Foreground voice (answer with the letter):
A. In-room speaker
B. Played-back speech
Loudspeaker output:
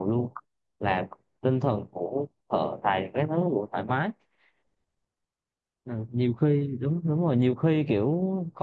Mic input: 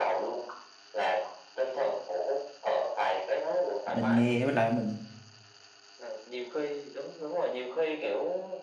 A